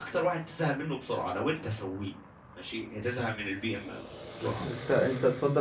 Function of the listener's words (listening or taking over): taking over